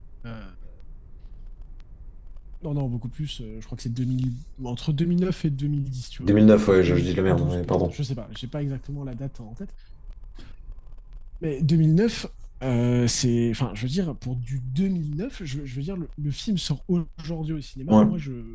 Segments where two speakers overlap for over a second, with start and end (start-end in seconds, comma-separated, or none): 6.2-7.9